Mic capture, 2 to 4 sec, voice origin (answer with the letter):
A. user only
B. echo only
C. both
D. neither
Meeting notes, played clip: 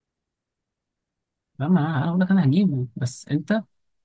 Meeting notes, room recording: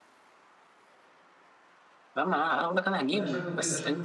C